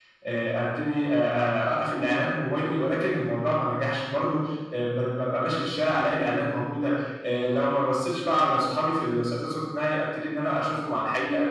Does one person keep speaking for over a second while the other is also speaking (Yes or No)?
No